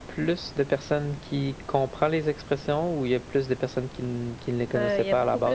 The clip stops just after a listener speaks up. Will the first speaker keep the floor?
No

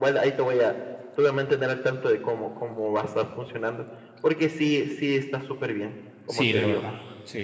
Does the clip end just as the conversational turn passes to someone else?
Yes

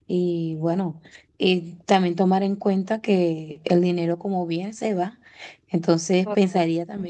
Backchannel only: Yes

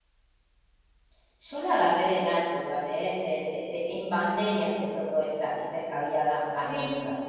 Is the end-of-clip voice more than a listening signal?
Yes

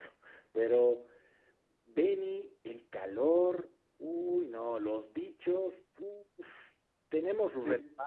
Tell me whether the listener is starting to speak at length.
No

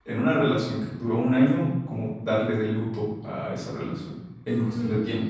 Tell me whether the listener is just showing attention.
No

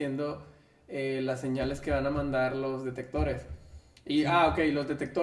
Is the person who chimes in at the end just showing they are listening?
Yes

